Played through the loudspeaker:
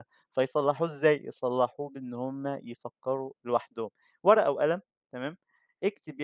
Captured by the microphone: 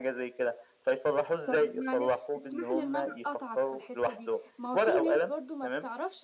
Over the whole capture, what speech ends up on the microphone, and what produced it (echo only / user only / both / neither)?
both